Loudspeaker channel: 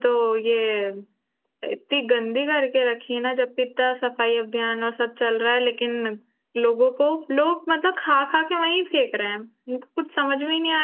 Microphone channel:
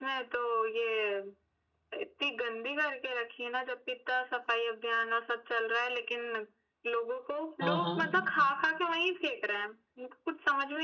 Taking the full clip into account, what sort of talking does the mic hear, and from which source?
both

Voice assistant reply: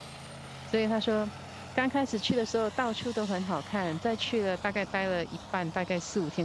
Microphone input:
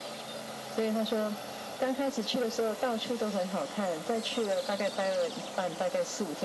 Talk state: echo only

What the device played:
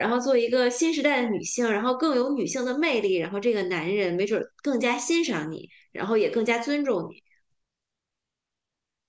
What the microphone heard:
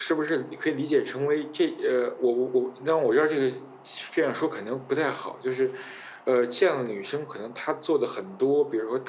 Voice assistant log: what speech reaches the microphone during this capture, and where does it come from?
user only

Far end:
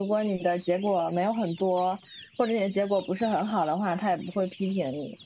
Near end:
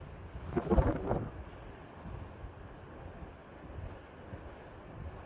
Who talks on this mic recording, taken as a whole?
neither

